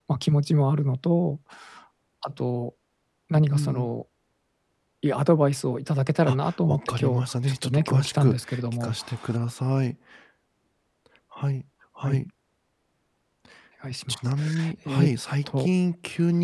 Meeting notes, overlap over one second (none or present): present